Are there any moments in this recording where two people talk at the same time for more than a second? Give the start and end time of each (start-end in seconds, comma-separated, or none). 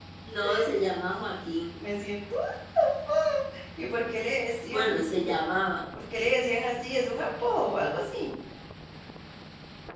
none